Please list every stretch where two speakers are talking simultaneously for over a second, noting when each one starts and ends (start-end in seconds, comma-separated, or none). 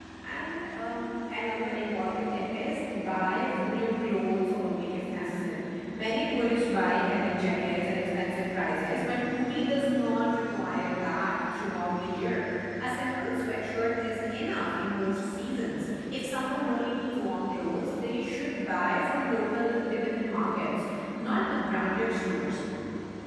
none